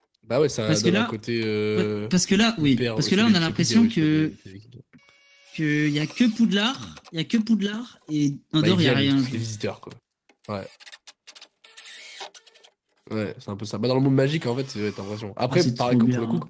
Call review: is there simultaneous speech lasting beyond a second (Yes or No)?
Yes